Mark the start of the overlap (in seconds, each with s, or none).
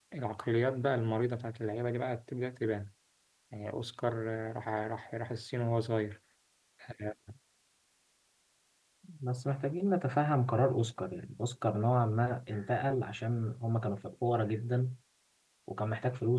none